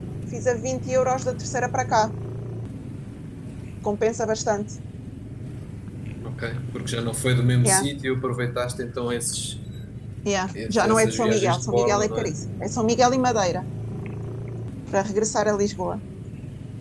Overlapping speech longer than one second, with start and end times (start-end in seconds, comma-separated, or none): 10.6-12.3